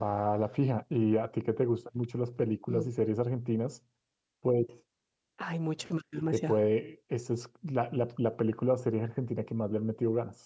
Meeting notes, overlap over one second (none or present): none